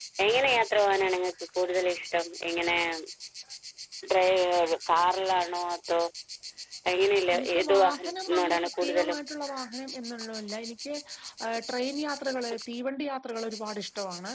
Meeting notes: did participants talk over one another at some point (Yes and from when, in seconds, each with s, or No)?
Yes, from 7.3 s